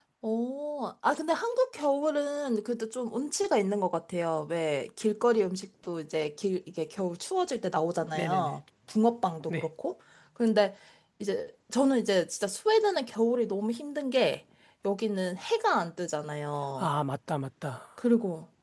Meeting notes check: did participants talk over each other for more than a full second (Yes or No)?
No